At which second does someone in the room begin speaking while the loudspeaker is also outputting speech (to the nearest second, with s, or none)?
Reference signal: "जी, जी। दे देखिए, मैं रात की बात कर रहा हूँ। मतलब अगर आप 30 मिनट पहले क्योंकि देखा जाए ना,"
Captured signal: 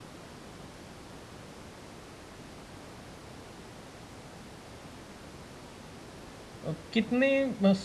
7 s